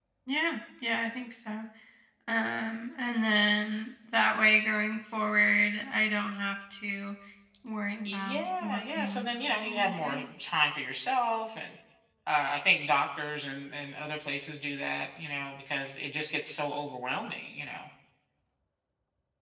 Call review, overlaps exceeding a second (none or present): present